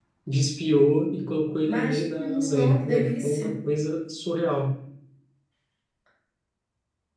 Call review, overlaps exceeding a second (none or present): present